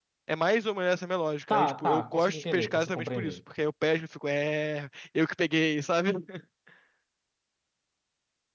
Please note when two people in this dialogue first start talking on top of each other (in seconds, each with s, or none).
1.5 s